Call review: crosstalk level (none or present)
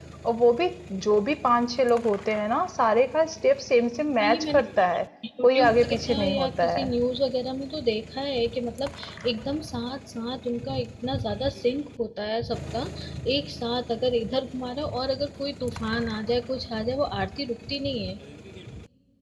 present